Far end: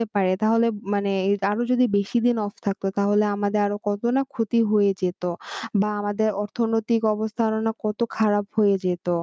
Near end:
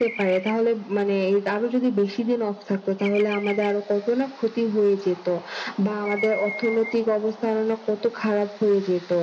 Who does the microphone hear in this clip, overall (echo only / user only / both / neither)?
echo only